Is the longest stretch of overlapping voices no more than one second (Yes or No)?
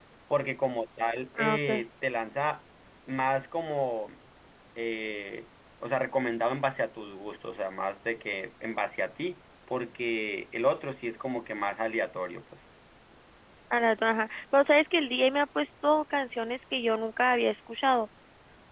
Yes